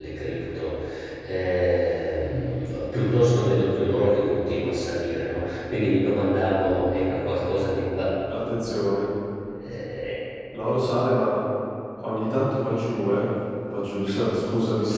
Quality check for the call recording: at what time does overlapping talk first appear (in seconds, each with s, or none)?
none